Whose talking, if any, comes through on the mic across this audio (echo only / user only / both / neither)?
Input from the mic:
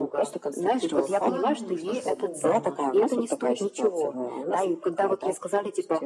both